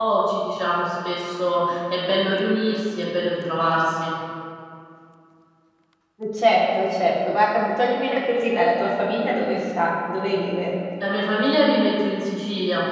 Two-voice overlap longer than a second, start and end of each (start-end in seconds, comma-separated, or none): none